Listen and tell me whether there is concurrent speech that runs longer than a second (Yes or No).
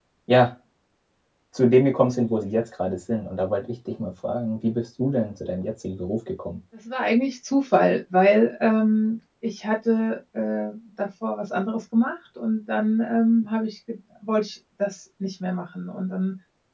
No